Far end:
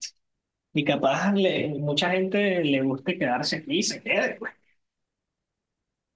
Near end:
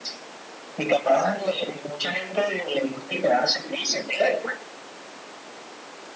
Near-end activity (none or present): none